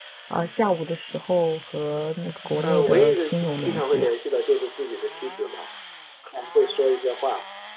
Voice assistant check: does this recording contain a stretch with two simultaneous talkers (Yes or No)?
Yes